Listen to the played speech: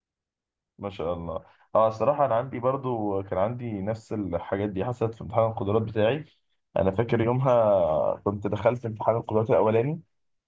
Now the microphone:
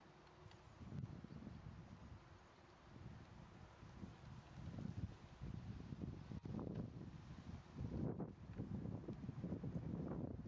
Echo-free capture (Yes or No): Yes